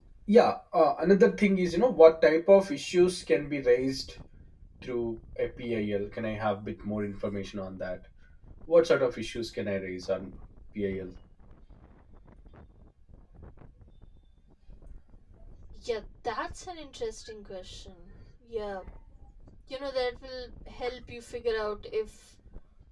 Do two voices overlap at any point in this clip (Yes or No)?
No